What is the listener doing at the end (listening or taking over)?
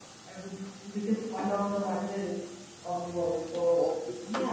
taking over